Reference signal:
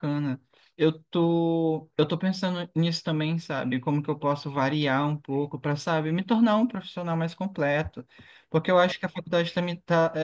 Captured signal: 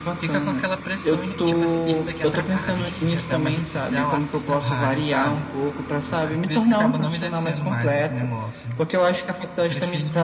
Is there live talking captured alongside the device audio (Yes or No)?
Yes